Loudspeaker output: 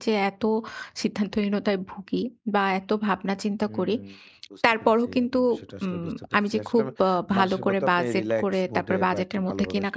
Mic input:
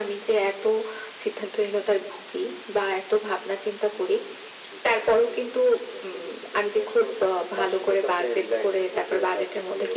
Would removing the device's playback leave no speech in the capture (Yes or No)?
Yes